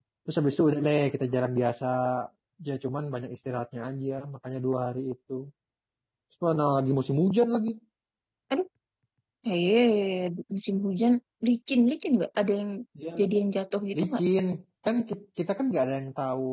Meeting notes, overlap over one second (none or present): none